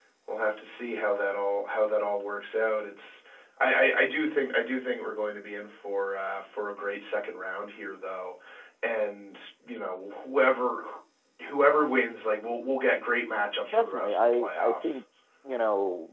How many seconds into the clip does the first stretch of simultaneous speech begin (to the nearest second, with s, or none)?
14 s